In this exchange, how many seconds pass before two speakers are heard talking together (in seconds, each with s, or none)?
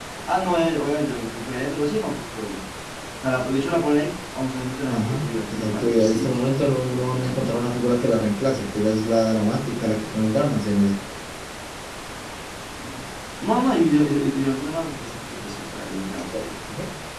4.9 s